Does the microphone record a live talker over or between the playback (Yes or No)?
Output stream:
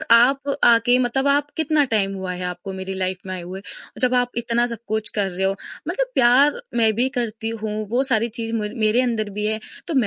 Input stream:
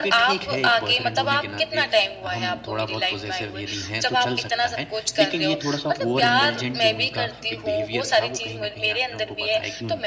Yes